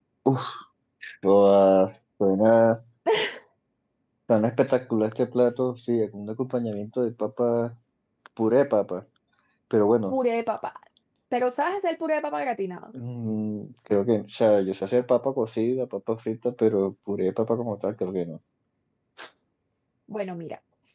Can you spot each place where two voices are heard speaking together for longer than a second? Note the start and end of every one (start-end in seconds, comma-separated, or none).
none